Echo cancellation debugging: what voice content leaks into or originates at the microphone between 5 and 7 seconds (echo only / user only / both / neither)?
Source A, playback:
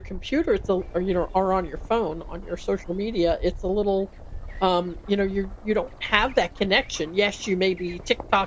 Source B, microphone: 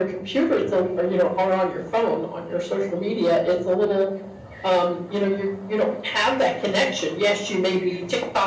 echo only